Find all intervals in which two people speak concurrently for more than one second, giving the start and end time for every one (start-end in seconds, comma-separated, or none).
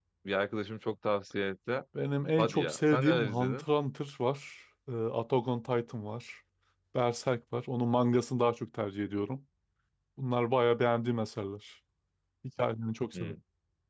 2.4-3.6